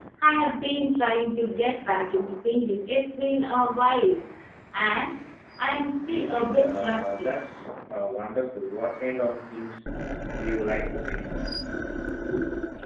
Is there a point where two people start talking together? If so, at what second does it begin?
5.7 s

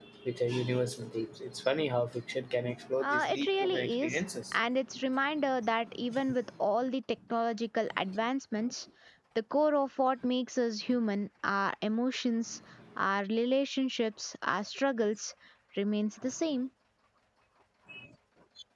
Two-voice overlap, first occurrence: 3.0 s

